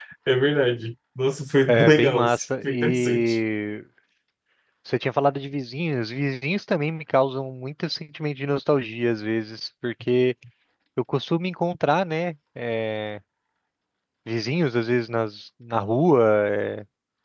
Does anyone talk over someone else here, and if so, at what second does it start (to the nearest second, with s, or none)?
2 s